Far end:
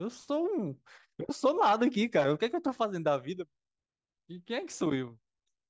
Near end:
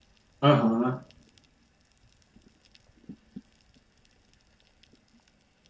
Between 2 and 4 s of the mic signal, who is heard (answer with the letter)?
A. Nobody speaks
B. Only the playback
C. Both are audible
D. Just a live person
A